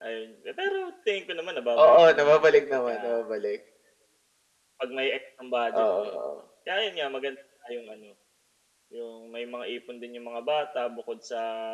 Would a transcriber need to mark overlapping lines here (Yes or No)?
Yes